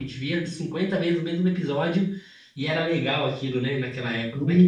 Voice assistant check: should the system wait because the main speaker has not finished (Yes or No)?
No